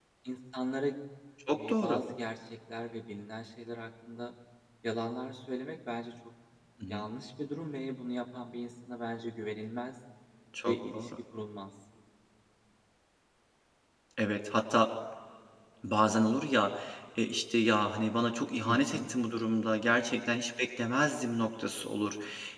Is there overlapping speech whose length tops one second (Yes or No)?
No